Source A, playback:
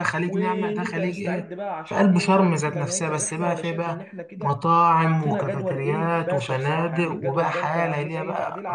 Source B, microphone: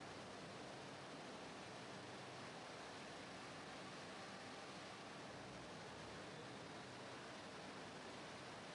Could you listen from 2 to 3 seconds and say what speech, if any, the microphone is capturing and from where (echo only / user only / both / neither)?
neither